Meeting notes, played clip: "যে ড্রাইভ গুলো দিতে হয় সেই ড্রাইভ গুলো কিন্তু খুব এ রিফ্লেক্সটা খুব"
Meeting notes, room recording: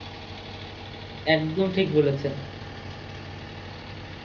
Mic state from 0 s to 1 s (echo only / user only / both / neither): neither